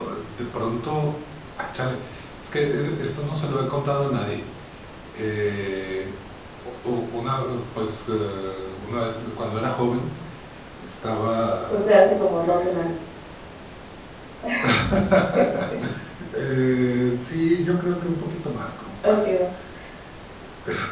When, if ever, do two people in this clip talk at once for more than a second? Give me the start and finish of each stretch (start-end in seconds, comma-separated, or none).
11.7-12.9